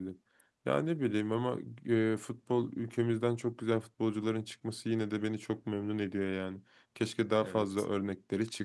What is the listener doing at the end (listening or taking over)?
listening